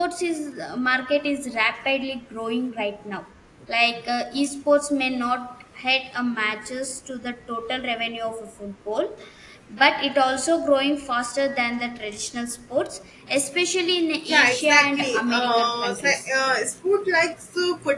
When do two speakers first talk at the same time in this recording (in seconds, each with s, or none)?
14.3 s